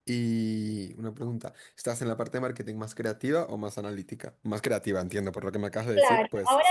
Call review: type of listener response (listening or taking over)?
taking over